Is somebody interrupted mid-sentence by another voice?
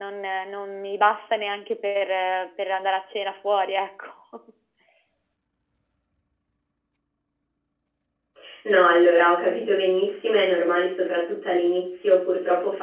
No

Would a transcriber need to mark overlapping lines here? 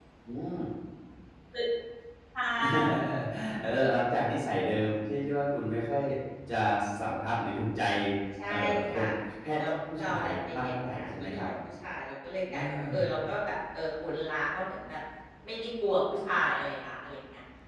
Yes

